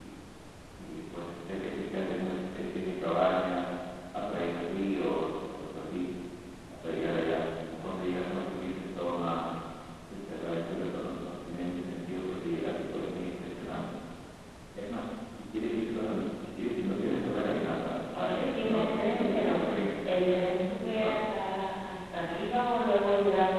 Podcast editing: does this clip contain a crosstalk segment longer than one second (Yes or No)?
Yes